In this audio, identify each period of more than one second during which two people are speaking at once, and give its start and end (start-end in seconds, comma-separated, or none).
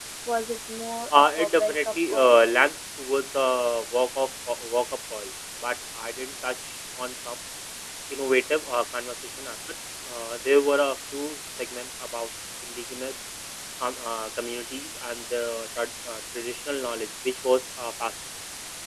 1.1-2.4